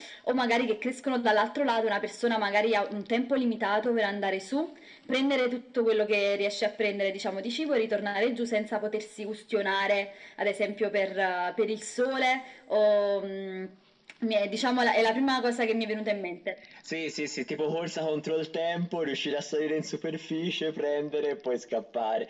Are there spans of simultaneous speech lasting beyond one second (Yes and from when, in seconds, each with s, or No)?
No